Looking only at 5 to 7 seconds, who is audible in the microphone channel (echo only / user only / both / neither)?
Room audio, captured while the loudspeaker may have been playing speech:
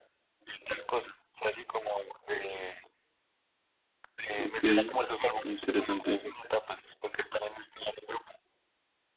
both